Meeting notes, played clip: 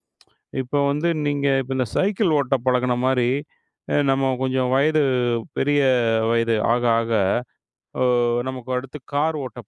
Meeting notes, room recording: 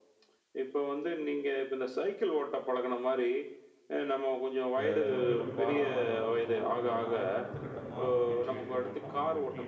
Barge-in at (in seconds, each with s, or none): 4.8 s